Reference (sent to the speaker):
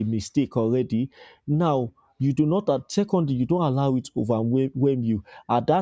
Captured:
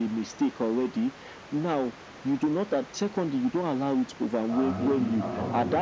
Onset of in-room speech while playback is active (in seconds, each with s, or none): 4.5 s